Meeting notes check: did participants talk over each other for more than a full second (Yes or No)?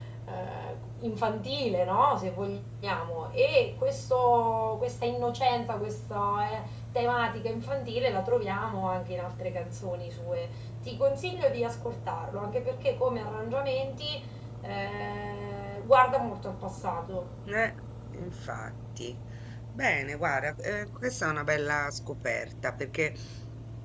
No